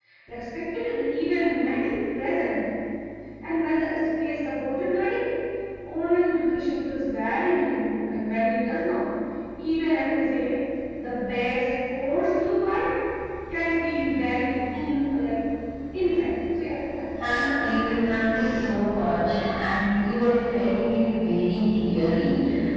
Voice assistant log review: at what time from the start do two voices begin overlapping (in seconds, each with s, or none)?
17.2 s